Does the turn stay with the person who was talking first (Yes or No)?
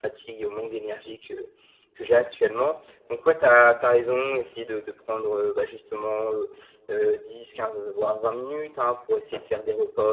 Yes